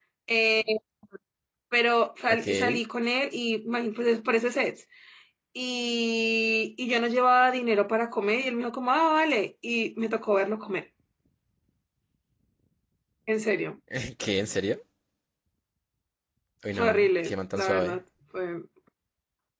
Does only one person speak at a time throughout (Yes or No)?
No